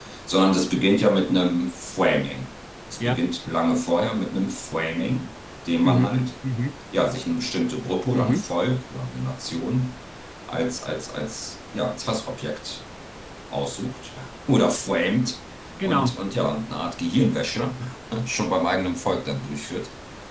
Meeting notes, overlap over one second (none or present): none